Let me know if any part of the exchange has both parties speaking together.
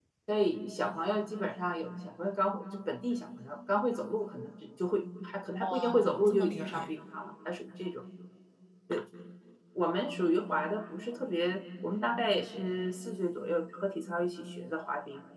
Yes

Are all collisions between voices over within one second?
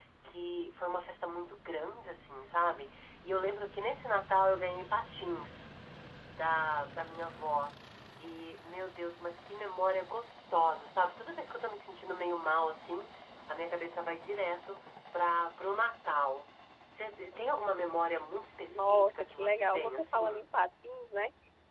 No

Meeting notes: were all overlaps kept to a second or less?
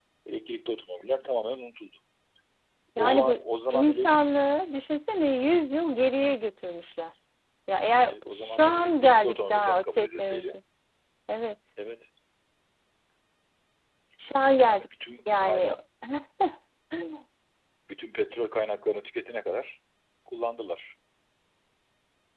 No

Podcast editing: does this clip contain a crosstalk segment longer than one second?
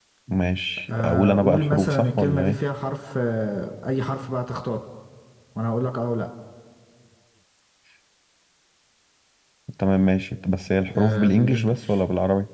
Yes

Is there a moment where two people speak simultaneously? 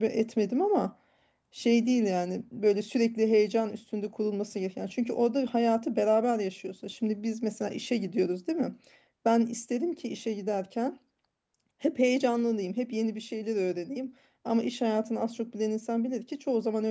No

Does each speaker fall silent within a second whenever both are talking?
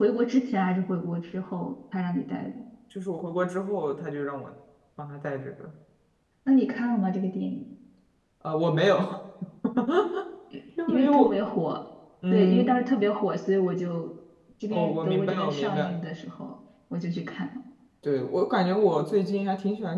No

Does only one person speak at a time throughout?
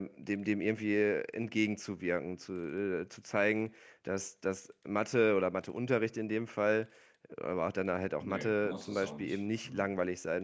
No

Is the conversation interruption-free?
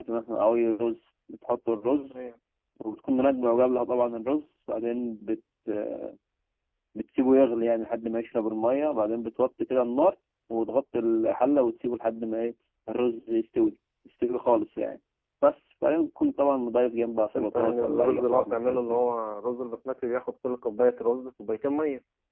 No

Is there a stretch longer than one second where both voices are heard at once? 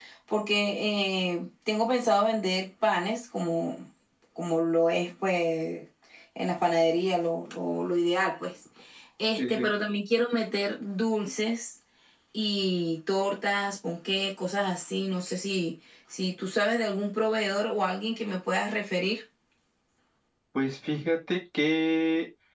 No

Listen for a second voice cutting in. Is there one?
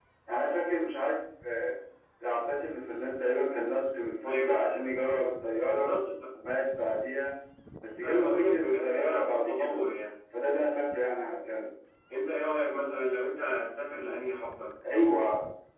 Yes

